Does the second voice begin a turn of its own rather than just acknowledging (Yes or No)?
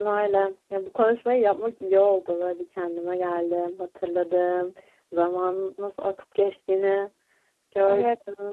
Yes